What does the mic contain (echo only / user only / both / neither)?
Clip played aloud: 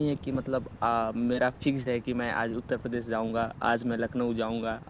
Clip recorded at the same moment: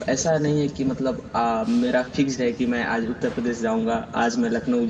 echo only